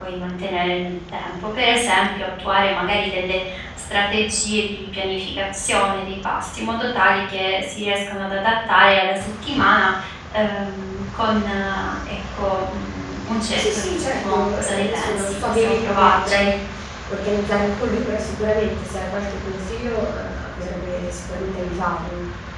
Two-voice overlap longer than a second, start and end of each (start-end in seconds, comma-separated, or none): 13.6-16.5